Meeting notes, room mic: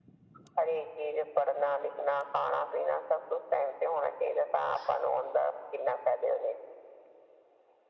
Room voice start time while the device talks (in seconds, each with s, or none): none